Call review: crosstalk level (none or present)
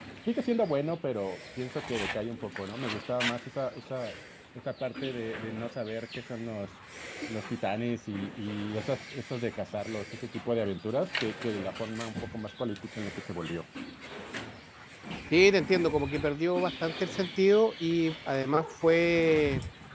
none